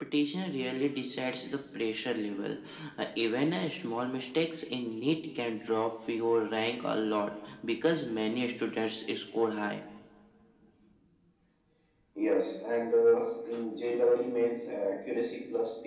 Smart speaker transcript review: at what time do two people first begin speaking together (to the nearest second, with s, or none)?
none